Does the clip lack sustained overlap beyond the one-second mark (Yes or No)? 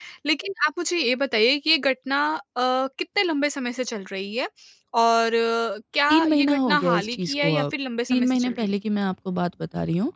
No